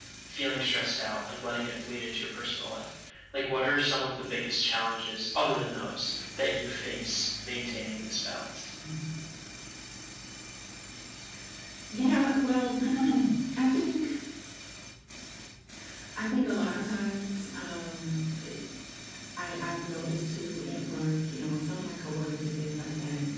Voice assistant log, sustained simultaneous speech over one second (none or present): none